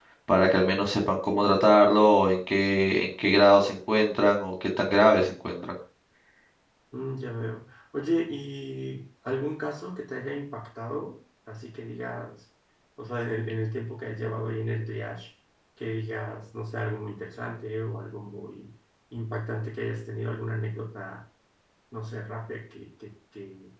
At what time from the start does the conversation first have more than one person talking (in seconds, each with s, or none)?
none